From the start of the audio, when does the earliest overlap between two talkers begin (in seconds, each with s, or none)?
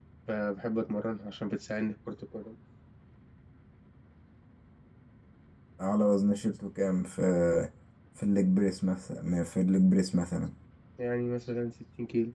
none